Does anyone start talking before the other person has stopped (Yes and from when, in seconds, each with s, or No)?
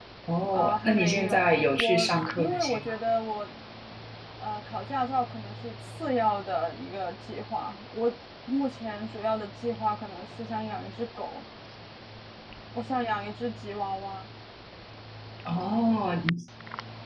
Yes, from 0.5 s